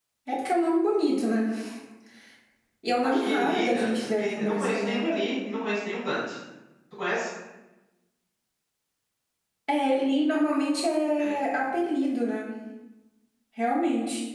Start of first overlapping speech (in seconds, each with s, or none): 3.0 s